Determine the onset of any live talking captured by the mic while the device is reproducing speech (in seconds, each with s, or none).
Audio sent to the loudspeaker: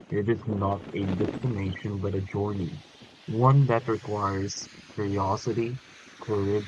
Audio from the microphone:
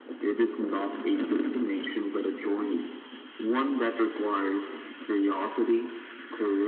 none